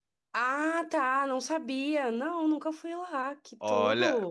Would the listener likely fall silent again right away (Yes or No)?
No